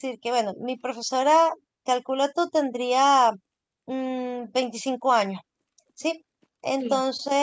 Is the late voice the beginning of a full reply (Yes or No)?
No